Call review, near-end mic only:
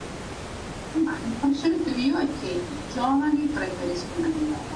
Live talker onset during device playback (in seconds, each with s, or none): none